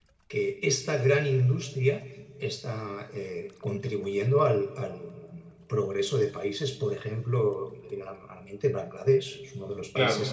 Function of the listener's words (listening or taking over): listening